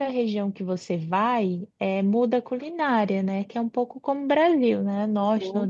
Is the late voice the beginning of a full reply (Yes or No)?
No